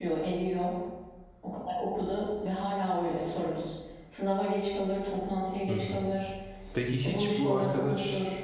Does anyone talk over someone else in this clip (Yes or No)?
Yes